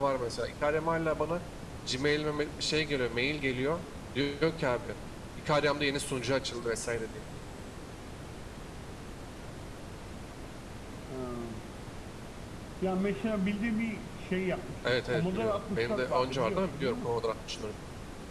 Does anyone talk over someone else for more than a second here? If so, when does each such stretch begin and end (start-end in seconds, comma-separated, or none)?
14.8-17.1